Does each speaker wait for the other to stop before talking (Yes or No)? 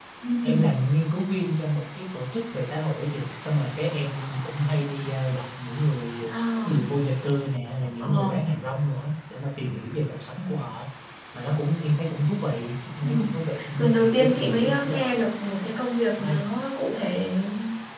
No